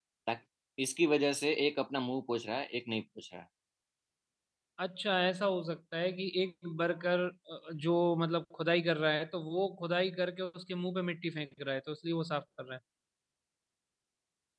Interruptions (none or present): none